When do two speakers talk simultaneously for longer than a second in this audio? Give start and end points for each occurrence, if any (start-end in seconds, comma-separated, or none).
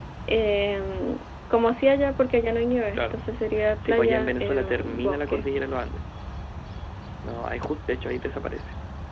3.9-5.5